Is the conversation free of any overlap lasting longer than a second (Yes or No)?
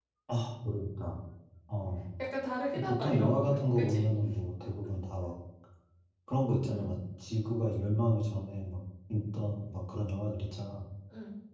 No